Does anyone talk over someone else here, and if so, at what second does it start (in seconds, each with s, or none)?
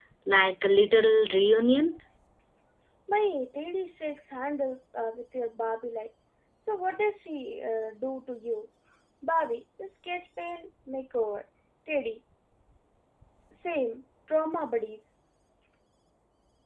none